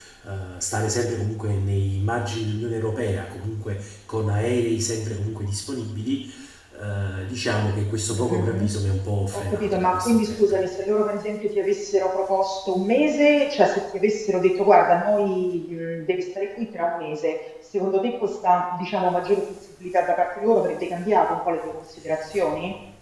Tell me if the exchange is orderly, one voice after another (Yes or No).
No